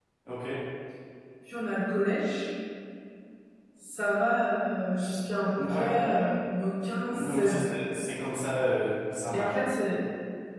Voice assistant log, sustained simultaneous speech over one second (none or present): none